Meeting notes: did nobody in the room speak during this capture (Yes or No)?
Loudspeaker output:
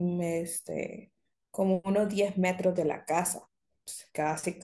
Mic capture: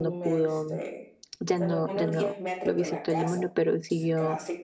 No